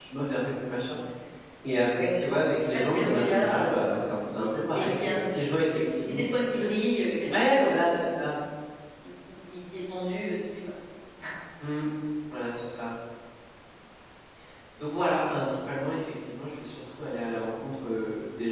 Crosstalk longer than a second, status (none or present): present